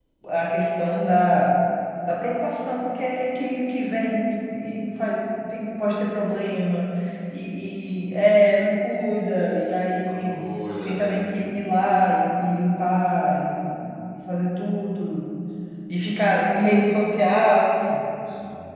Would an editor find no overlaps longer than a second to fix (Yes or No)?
Yes